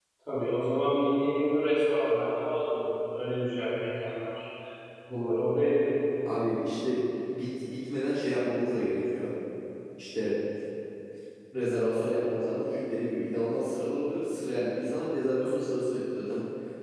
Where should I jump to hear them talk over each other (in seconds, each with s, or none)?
none